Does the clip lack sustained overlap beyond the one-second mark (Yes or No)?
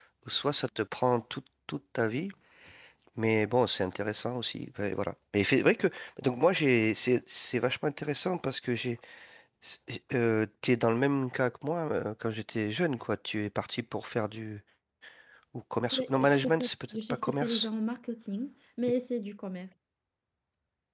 No